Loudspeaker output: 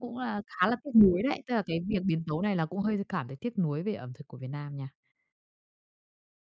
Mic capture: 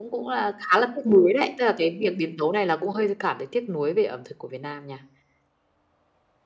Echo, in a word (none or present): present